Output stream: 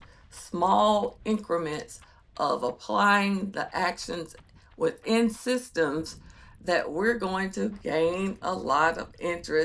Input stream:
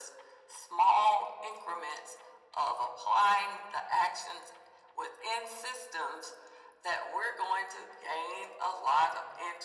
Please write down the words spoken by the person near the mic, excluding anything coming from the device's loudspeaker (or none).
none